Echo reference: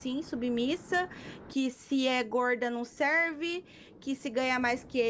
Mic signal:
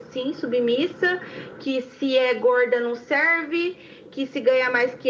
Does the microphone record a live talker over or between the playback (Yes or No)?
No